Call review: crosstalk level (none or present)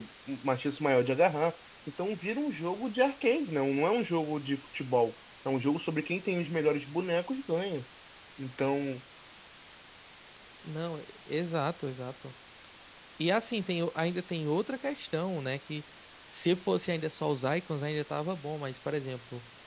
none